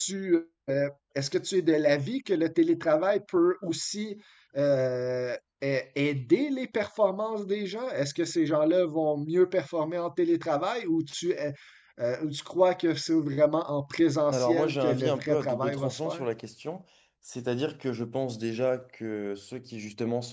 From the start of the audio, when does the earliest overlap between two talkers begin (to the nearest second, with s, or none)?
14 s